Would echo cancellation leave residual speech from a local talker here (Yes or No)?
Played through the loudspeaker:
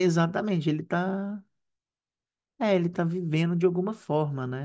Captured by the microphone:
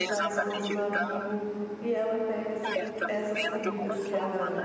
Yes